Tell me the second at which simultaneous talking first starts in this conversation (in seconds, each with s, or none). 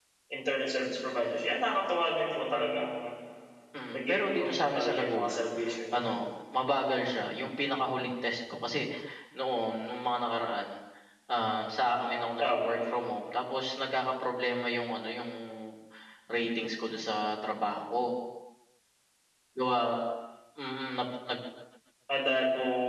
3.9 s